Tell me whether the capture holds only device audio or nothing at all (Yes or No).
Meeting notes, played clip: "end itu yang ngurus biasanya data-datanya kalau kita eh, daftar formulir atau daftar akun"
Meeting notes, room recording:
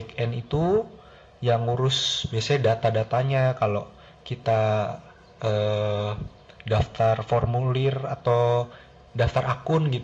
Yes